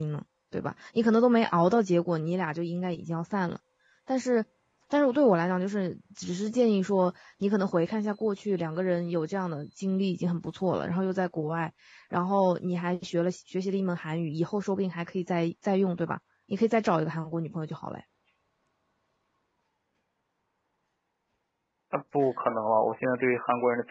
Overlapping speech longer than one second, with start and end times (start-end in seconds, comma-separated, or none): none